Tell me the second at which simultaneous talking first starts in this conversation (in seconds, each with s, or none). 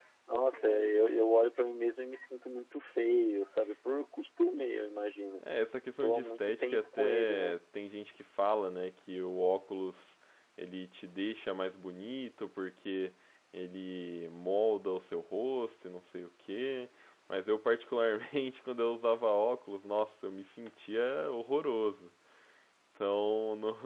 6.0 s